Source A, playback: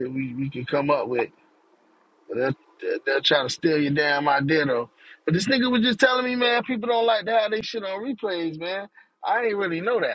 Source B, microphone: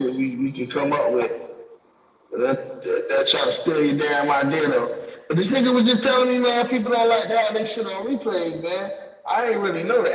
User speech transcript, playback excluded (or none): none